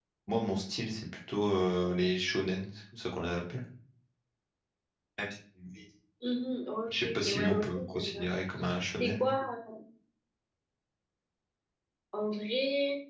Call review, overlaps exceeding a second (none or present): present